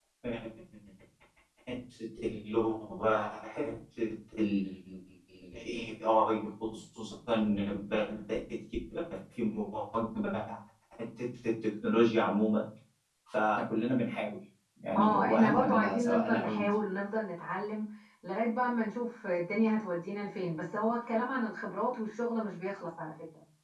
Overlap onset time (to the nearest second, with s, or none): 15 s